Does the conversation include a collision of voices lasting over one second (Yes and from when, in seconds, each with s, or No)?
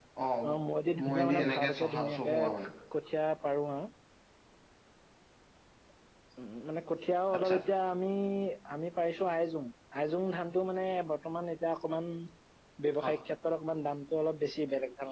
Yes, from 1.0 s